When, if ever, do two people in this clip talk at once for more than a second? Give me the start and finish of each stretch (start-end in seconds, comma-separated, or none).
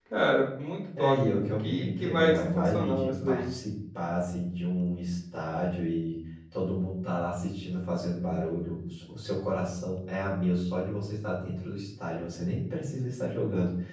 1.0-3.5